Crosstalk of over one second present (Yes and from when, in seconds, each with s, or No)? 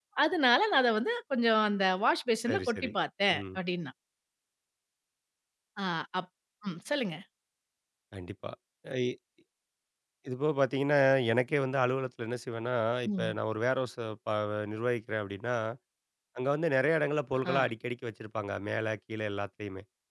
No